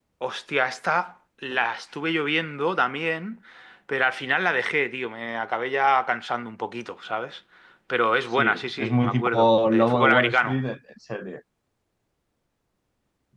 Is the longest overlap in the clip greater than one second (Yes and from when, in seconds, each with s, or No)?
Yes, from 8.4 s